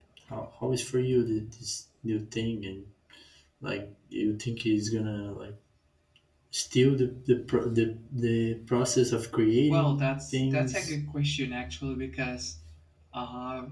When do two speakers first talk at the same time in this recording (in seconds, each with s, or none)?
9.7 s